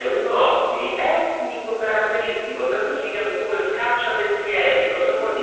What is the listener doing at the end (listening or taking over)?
taking over